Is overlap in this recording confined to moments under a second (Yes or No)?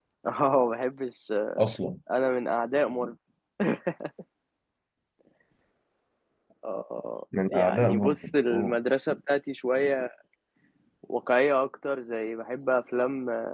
No